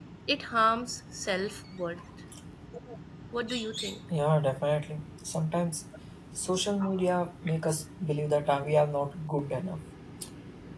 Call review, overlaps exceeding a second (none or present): none